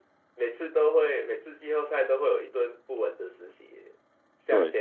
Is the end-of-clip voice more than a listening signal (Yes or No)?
No